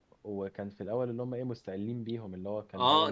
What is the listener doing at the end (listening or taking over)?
taking over